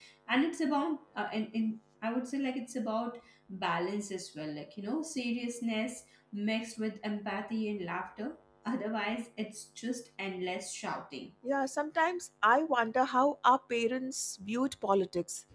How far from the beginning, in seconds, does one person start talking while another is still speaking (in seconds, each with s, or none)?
none